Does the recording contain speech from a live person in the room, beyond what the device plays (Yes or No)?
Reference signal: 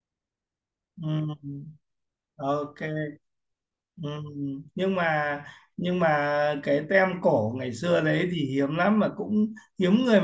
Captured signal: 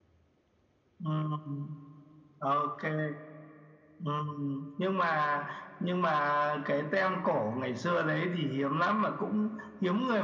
No